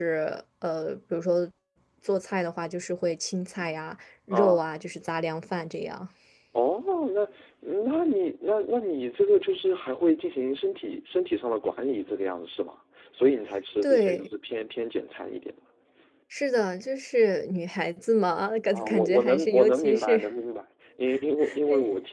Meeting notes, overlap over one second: present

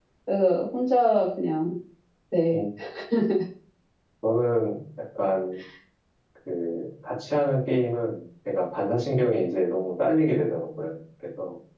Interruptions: none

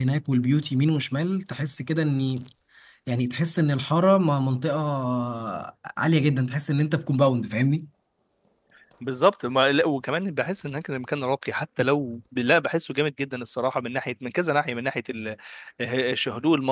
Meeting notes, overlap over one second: none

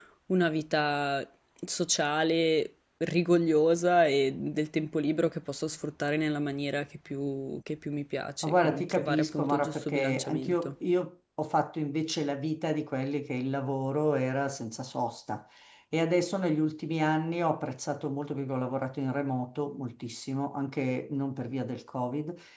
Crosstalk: present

